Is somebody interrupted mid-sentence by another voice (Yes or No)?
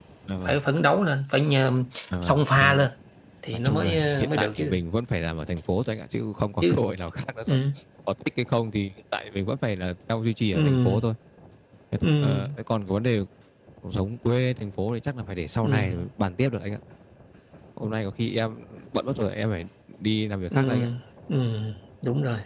Yes